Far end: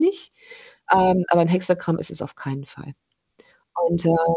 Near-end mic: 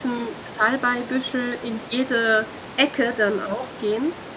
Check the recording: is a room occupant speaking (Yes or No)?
Yes